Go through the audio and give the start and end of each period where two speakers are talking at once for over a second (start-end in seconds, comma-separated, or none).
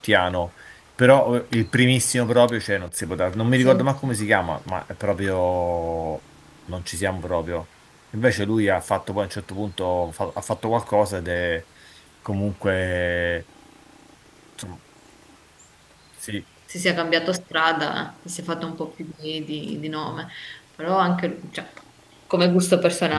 none